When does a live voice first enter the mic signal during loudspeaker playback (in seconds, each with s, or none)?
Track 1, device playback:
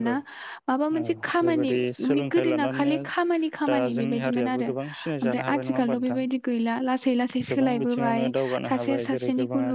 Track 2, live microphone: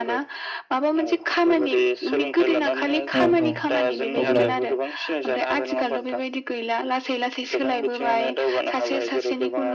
3.2 s